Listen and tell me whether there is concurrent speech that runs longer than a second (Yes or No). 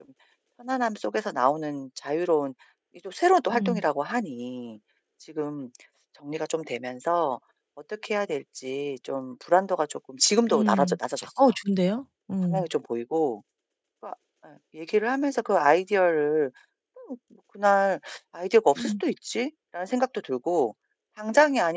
No